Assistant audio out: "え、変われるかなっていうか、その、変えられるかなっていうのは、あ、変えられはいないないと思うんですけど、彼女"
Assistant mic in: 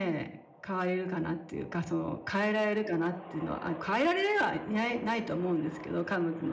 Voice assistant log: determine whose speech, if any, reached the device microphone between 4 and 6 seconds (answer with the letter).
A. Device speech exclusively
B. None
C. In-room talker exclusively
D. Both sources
A